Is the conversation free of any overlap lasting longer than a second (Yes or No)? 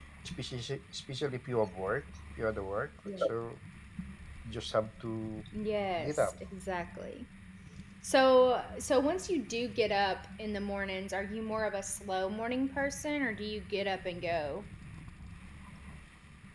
Yes